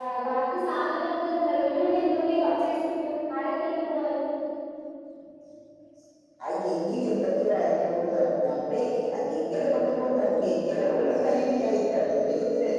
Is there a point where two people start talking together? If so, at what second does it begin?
none

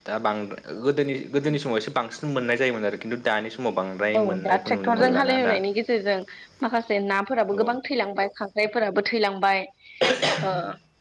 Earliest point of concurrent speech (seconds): 4 s

